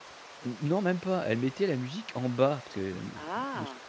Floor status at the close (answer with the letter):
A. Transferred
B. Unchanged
B